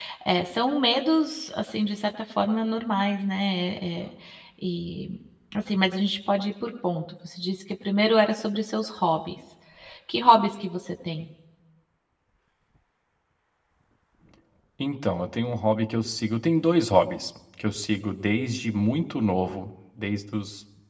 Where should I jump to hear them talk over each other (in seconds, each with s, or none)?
none